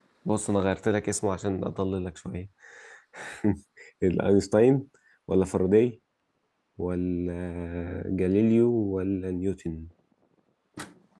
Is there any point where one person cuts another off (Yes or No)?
No